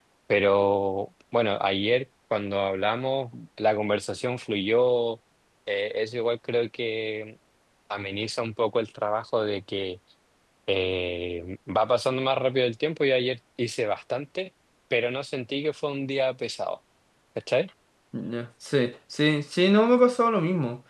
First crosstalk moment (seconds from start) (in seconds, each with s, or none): none